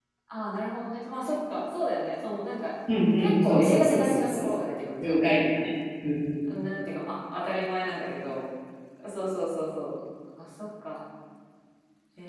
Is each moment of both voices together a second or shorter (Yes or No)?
No